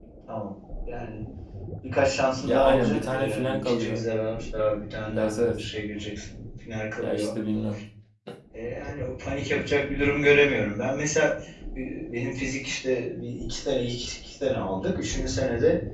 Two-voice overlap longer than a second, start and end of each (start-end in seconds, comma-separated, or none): 2.5-4.0